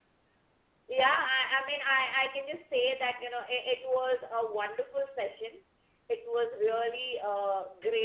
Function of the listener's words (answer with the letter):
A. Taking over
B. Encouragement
B